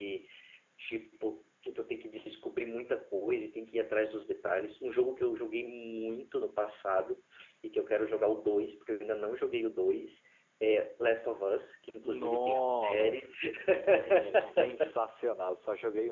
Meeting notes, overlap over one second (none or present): present